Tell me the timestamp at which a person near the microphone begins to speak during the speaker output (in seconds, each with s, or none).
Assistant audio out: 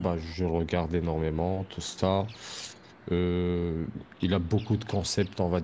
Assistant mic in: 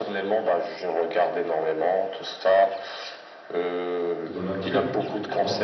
4.2 s